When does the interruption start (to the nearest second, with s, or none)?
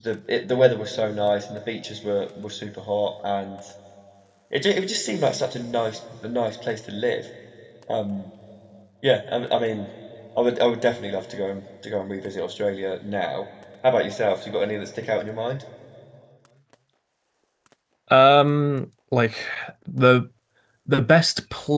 none